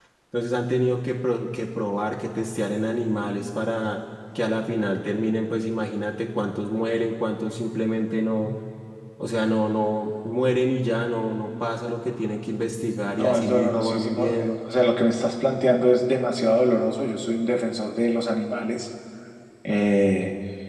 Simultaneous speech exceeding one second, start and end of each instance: 13.2-14.5

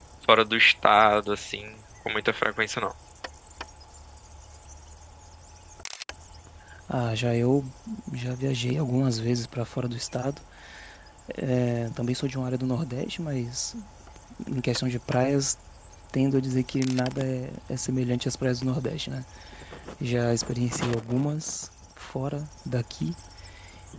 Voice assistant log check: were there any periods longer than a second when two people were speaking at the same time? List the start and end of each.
none

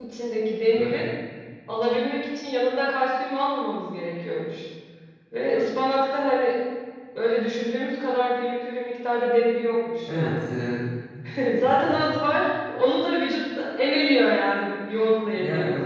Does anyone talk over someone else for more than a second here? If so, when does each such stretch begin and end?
none

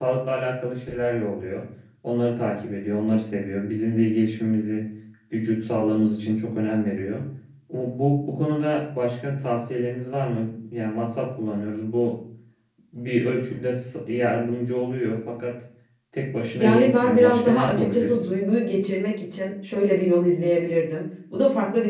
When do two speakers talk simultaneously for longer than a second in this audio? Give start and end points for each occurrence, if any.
16.6-18.1

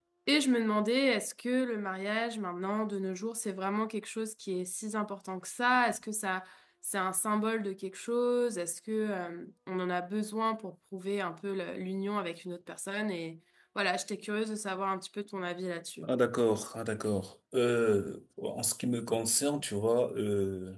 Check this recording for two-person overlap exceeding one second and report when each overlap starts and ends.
none

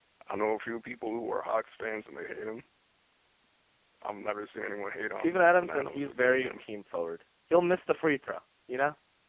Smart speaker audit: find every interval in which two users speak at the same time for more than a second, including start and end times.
5.1-6.6

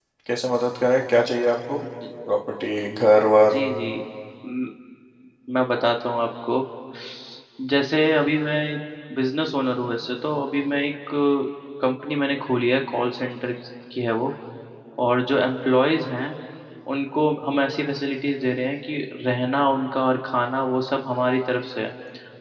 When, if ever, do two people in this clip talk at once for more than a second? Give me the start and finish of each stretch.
none

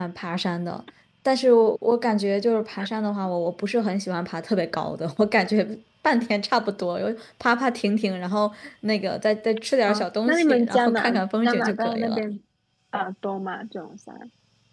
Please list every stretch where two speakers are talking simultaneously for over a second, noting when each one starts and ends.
9.9-12.2

